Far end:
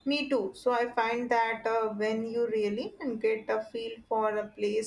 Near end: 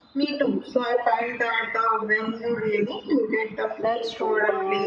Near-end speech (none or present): present